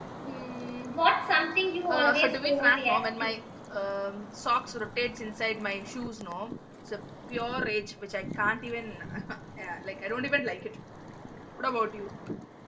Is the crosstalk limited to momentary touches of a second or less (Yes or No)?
No